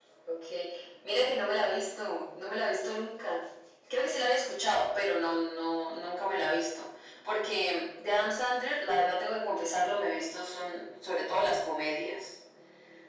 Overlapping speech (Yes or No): No